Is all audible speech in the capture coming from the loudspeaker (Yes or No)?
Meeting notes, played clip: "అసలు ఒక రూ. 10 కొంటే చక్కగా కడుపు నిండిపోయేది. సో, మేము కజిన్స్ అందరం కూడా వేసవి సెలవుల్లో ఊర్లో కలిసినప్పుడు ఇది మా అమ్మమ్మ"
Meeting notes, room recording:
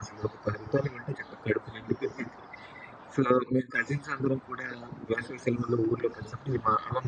Yes